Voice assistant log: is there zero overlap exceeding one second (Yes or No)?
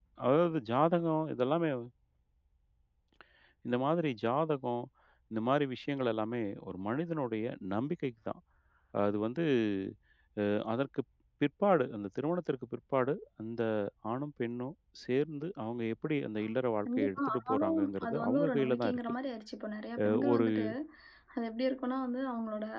No